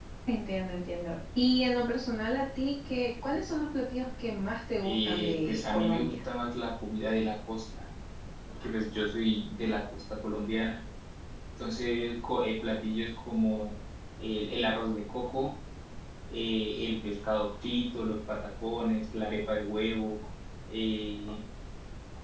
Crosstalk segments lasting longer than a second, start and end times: 4.8-6.1

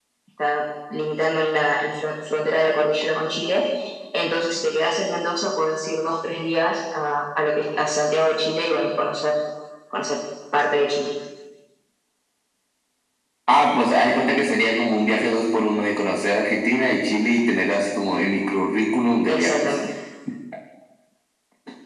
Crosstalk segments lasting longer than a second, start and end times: none

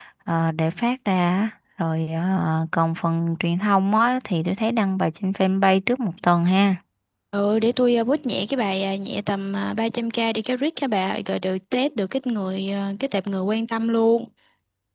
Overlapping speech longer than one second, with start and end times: none

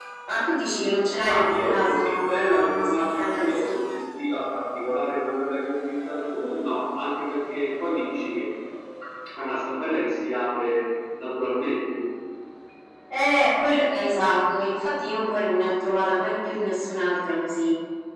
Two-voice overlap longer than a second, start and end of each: 1.2-3.8

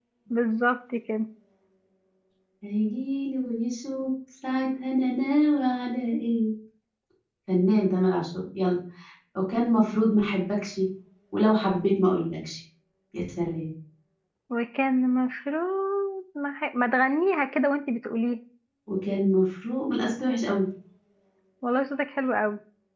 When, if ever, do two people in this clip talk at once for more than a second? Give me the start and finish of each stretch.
none

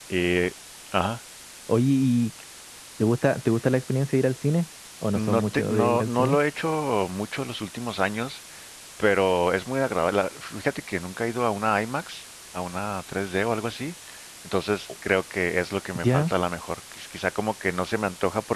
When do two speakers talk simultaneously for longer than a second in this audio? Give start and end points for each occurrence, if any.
5.2-6.4

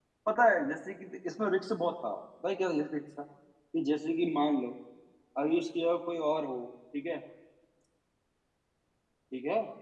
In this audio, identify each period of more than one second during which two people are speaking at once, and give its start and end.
none

